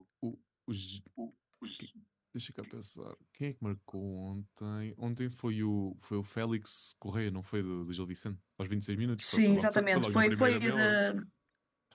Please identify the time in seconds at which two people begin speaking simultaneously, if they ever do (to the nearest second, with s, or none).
9 s